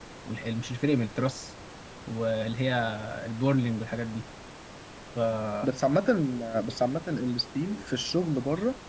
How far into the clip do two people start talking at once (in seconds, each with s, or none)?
none